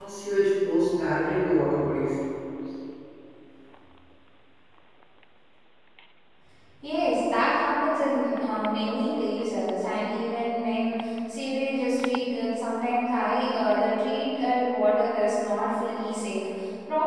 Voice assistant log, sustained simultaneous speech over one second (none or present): none